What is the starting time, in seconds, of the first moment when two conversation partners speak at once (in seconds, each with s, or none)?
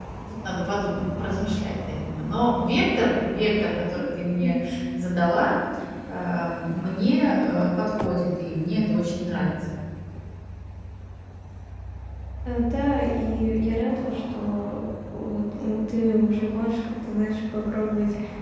none